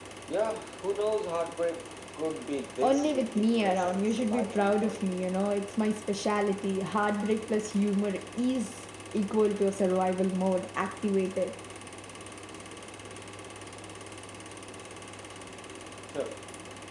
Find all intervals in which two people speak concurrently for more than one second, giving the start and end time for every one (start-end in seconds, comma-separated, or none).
2.8-5.1